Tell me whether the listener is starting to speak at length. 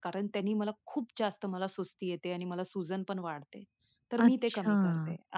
No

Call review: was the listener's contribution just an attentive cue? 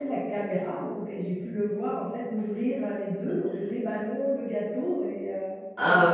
No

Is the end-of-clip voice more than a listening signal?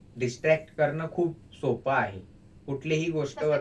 No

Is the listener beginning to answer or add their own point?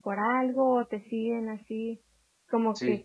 No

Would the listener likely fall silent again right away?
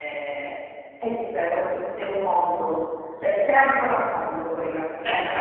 No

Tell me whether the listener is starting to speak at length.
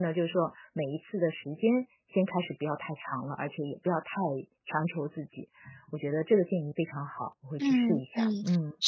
Yes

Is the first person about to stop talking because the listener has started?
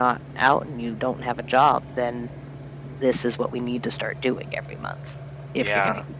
Yes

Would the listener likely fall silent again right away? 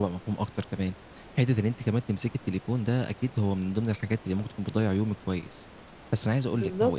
Yes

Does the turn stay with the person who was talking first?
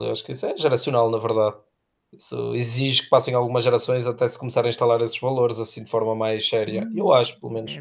No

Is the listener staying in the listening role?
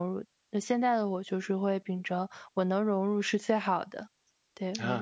No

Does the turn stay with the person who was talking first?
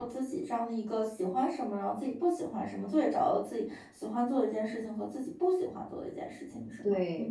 No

